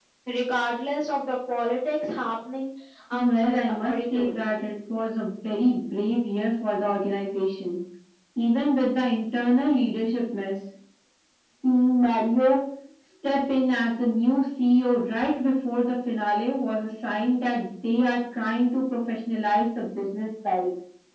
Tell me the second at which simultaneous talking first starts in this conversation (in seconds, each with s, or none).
3.1 s